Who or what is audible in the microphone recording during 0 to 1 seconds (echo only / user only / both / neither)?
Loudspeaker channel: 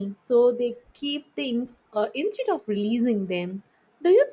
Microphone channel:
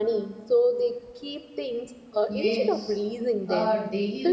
echo only